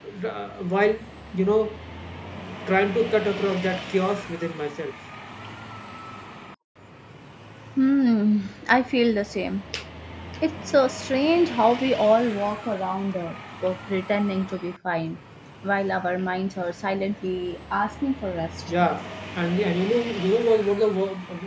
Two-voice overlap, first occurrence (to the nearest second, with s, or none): none